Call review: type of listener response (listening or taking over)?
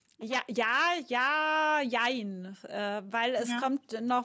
listening